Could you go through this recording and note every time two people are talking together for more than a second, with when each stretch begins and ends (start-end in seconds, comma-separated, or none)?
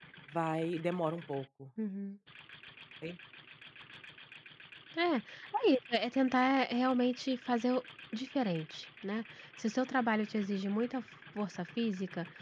none